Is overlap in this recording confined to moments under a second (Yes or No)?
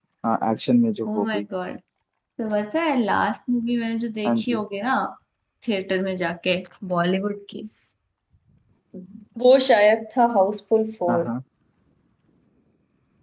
Yes